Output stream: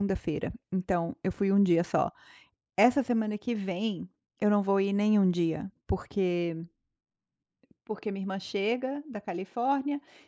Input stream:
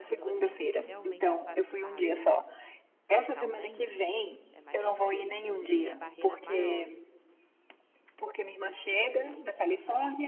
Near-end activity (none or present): present